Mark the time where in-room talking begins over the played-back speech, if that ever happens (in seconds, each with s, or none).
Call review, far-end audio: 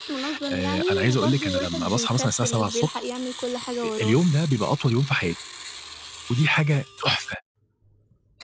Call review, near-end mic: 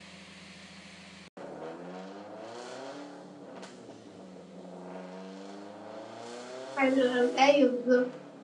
6.8 s